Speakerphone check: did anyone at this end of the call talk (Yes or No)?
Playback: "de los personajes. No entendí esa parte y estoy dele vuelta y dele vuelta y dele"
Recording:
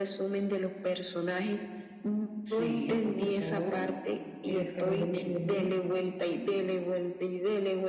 Yes